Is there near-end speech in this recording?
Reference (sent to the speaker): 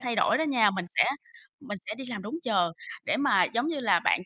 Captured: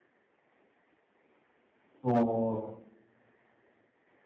Yes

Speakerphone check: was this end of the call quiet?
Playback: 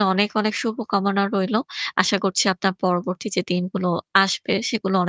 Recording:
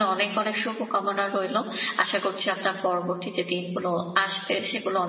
Yes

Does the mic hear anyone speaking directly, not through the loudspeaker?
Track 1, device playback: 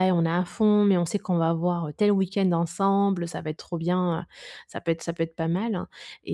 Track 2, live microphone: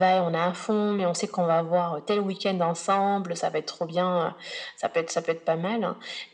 No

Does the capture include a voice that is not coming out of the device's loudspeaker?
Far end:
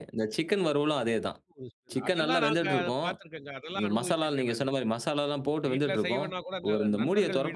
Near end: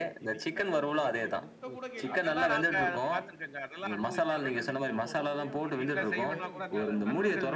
Yes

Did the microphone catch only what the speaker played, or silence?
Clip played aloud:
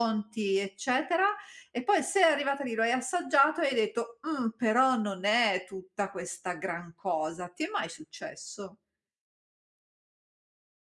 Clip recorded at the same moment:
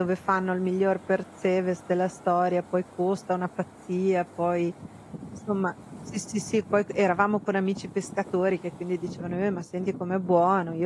No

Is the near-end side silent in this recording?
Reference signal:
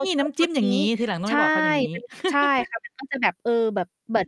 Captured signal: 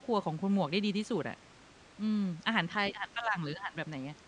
No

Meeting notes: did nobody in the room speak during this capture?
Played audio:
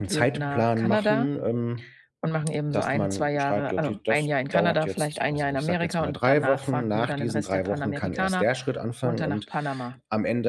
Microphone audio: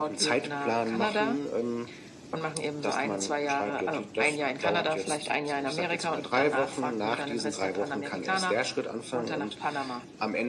Yes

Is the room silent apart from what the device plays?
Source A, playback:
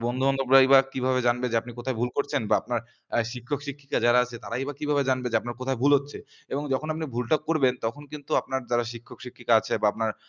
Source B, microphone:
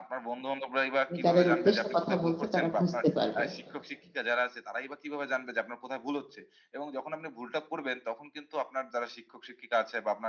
No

